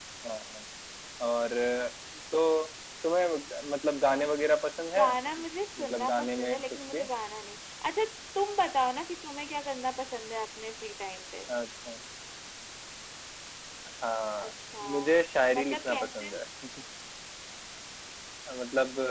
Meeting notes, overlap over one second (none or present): present